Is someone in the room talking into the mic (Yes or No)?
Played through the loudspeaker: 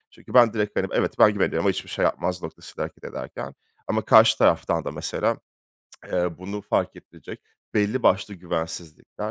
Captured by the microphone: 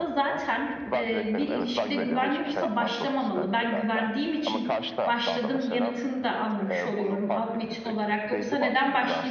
Yes